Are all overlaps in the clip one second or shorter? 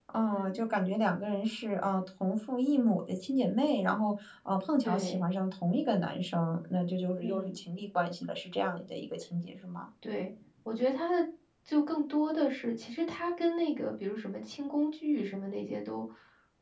Yes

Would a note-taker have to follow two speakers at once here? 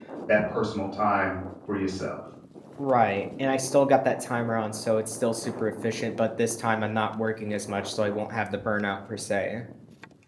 No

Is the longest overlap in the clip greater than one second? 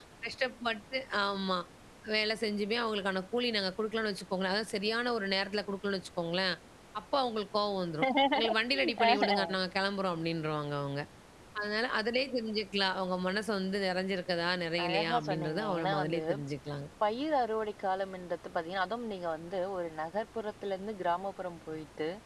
Yes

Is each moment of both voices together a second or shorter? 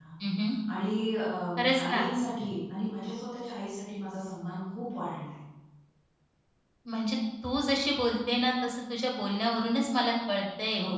Yes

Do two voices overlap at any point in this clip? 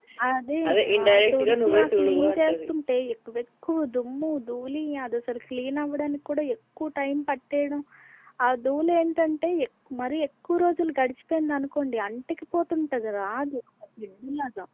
Yes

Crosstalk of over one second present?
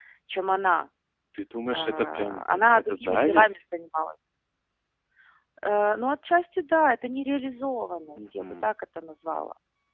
Yes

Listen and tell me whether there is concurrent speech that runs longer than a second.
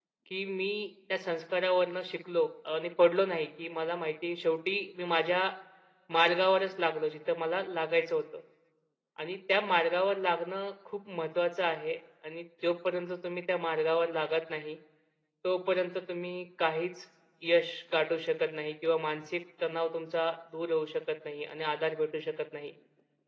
No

